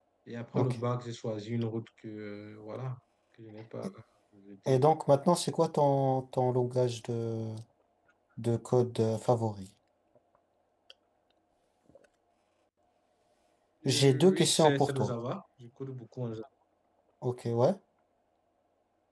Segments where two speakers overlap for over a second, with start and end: 13.8-15.1

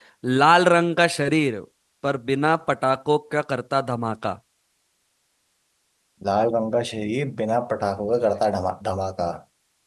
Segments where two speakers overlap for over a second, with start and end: none

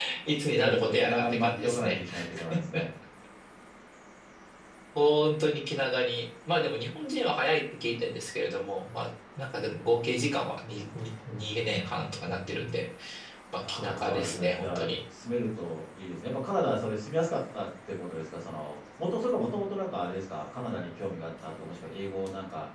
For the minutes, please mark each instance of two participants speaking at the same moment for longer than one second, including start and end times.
0.5-2.0, 13.7-14.9

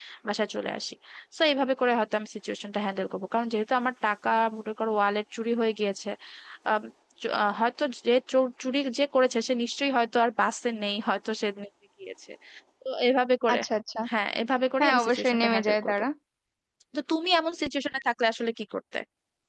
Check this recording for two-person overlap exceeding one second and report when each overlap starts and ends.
14.8-16.0

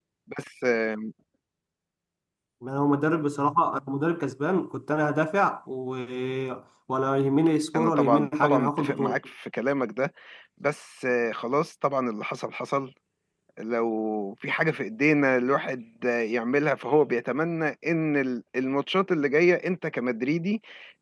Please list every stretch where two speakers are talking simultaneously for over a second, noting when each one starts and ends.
7.8-9.2

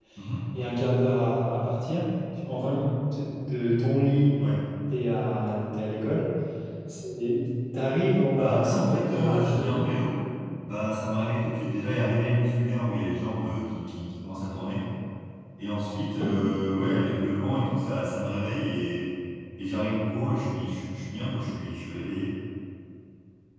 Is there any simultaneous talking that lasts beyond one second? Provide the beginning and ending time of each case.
8.3-9.9

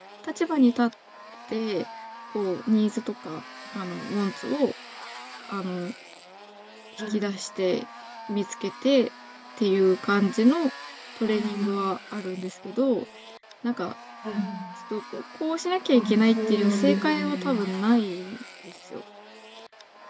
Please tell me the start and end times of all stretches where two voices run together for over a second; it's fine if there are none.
15.9-17.6

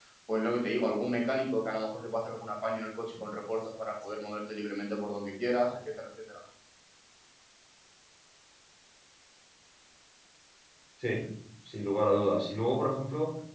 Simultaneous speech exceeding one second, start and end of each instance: none

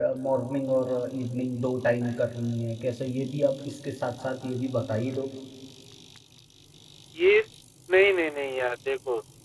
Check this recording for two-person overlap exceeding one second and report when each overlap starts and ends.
none

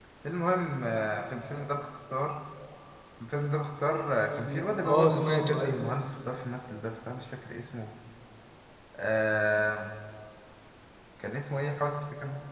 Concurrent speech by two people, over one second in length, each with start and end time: 4.3-5.8

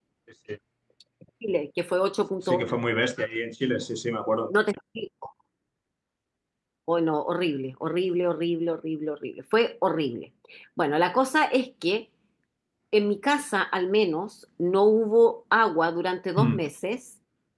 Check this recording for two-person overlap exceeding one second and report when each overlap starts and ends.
none

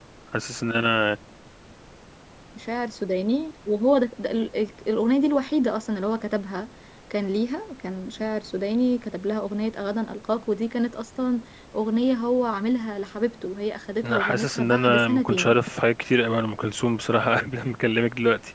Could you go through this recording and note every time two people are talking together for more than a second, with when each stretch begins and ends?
14.0-15.6

